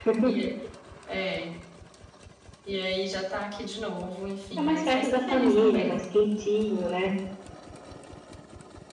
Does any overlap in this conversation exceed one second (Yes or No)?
Yes